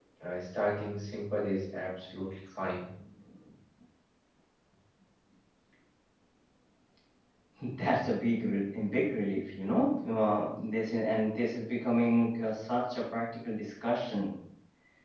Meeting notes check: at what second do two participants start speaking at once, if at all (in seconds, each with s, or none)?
none